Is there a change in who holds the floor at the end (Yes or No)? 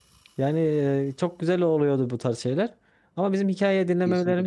No